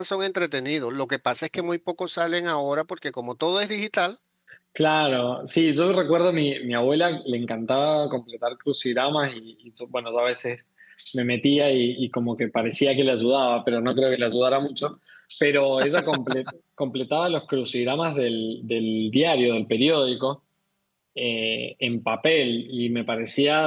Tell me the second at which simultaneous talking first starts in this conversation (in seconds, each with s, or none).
none